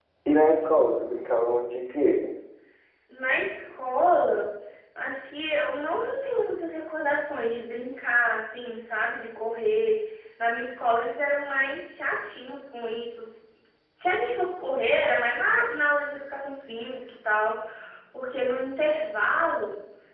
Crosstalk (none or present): none